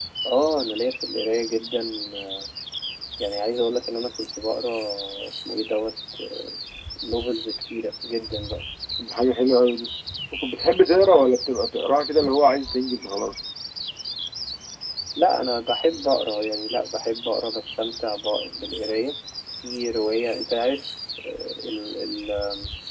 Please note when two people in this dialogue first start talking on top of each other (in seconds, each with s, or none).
none